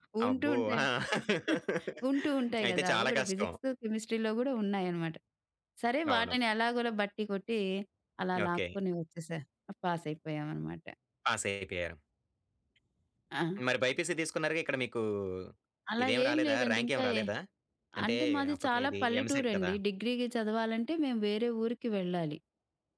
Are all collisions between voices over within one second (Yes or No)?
No